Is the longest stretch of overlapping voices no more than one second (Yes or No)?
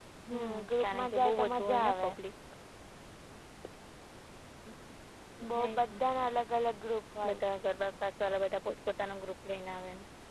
No